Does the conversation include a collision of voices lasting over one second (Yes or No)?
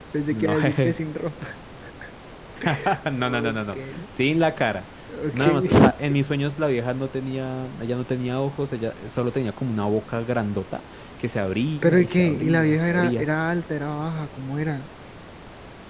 Yes